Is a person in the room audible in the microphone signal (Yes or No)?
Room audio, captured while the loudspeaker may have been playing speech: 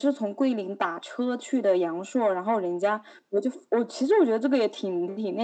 No